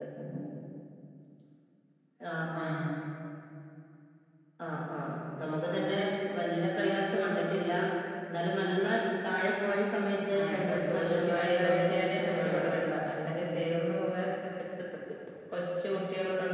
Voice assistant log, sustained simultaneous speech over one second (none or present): present